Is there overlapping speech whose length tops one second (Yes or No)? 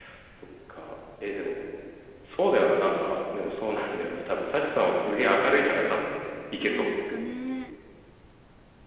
No